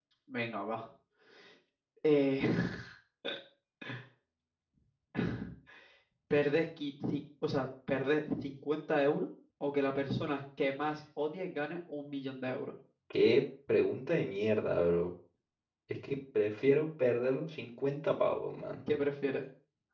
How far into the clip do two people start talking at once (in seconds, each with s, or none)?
none